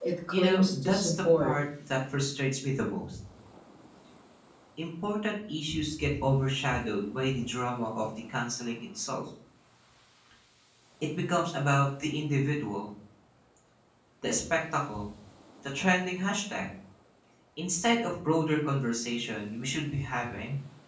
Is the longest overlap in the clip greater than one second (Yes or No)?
Yes